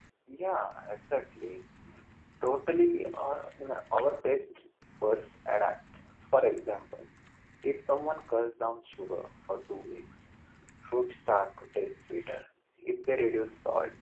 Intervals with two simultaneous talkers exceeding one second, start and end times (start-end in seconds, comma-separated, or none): none